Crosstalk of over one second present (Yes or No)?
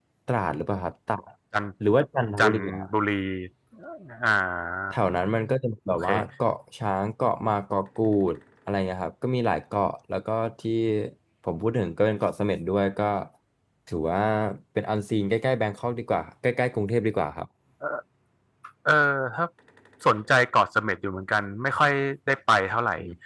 No